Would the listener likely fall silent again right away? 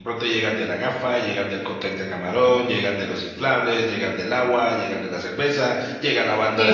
Yes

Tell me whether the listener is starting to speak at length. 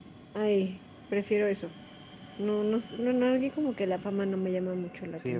Yes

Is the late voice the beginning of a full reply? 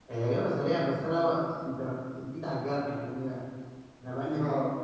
No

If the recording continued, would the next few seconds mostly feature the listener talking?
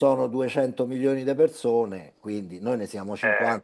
No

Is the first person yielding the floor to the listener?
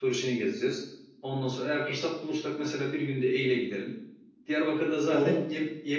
No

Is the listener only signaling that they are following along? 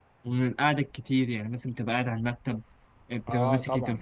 No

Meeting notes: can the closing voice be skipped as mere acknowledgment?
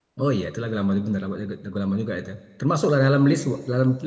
Yes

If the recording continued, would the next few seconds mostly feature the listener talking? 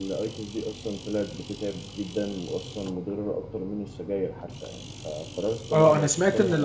Yes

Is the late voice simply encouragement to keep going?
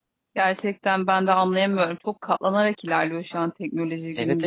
No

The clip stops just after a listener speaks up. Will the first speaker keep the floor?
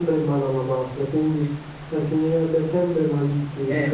No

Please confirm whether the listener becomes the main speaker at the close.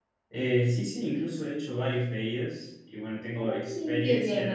Yes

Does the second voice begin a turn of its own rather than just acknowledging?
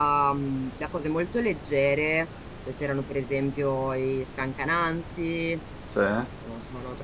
No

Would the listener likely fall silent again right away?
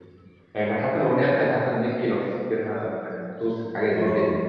No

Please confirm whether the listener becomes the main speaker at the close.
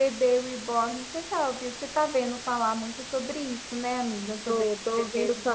Yes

